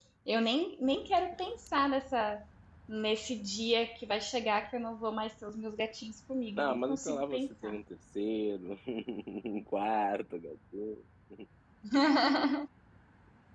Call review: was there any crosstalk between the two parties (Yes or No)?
Yes